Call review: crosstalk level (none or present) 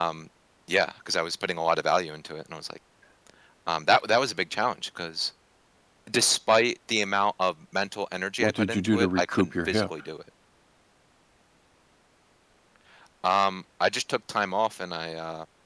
present